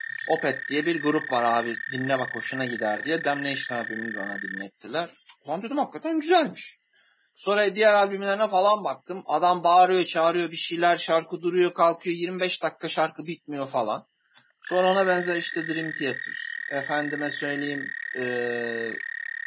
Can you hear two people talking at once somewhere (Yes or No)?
No